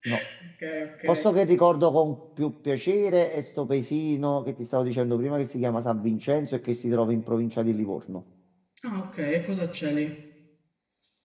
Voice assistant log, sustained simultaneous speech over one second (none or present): none